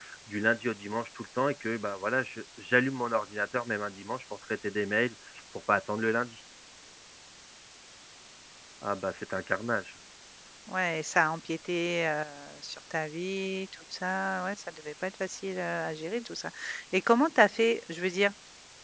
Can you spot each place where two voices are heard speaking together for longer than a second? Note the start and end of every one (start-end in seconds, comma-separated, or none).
none